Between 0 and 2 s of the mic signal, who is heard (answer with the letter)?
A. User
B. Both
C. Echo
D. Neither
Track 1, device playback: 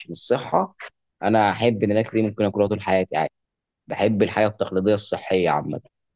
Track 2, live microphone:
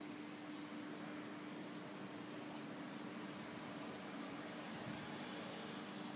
D